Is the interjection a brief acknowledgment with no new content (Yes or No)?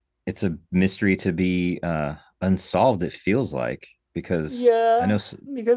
No